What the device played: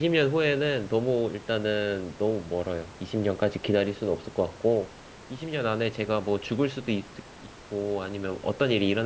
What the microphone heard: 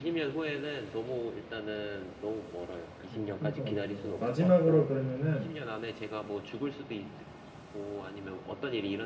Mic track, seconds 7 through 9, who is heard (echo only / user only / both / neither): echo only